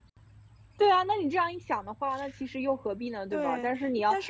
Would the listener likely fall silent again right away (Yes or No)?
No